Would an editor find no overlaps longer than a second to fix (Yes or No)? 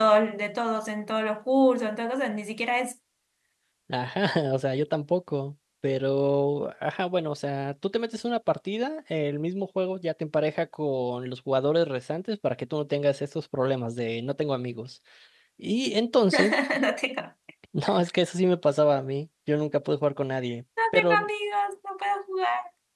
Yes